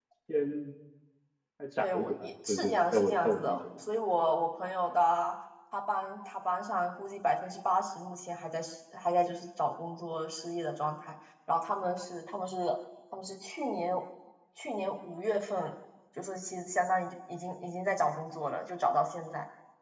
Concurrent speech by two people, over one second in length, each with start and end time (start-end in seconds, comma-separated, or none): 1.8-3.7